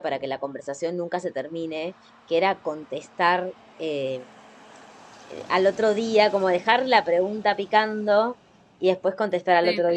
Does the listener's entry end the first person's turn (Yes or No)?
No